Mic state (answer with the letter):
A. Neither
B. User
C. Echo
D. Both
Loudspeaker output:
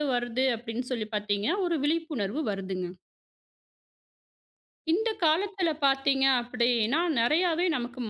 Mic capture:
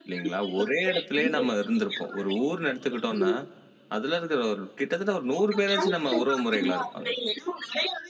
D